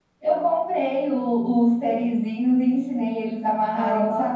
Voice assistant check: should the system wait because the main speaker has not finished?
Yes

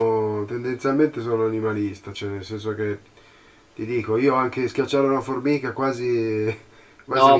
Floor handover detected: Yes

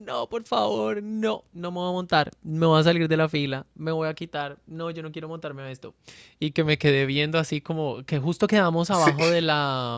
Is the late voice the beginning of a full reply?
No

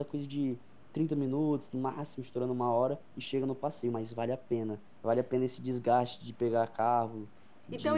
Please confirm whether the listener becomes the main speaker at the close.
Yes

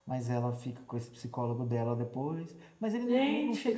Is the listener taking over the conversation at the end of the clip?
No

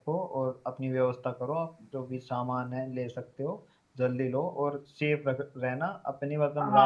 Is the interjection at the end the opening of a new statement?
Yes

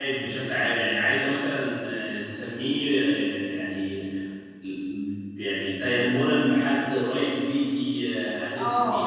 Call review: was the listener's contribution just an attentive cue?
No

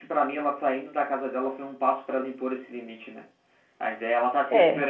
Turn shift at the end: No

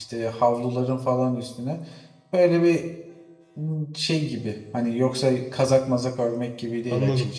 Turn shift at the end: Yes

